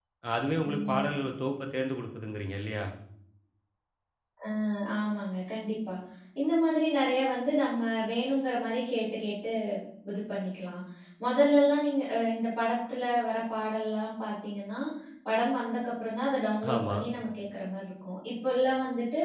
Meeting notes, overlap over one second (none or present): none